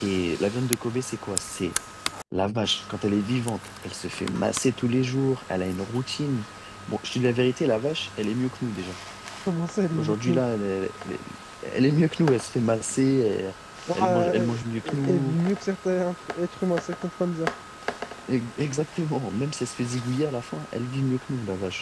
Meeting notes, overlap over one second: present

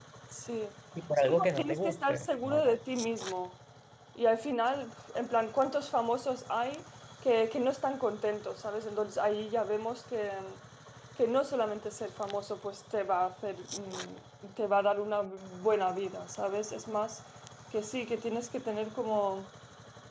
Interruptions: present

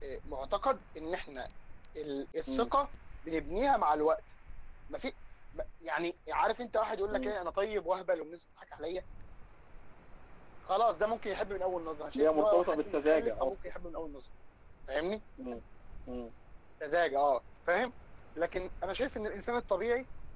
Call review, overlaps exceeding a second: present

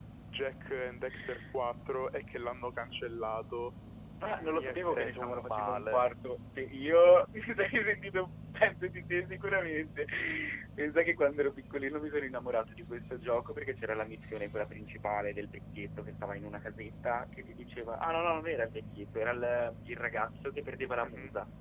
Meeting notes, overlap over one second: present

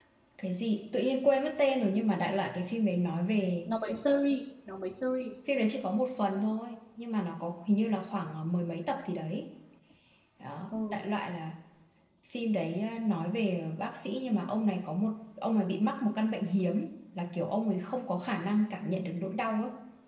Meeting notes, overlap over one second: none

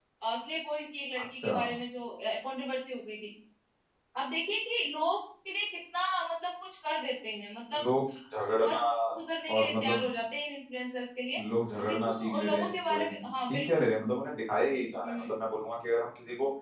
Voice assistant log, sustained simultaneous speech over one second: present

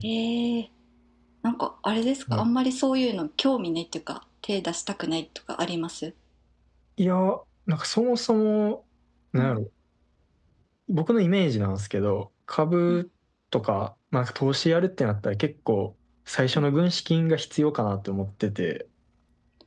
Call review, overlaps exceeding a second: none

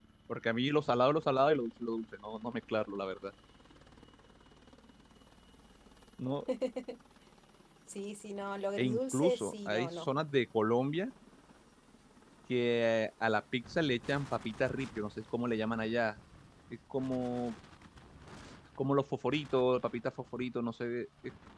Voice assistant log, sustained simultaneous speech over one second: present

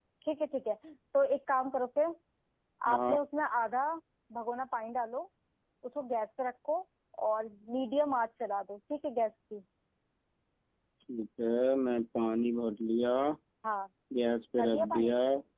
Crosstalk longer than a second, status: none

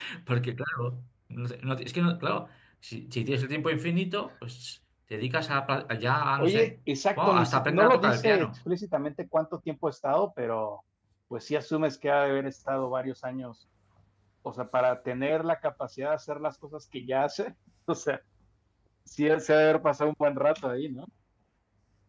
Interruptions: present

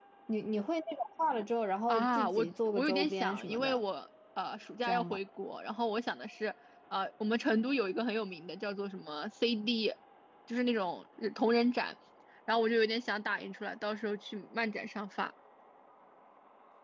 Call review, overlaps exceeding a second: present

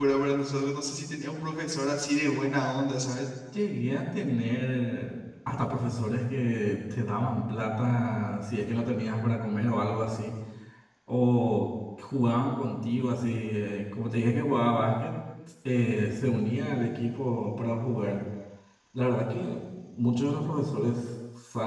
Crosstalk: none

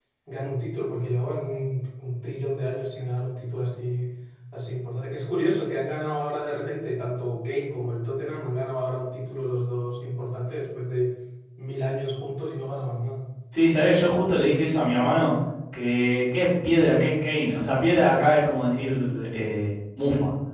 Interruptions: none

